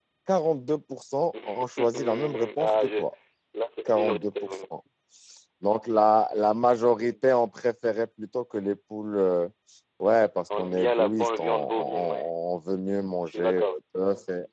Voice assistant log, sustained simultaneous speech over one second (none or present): present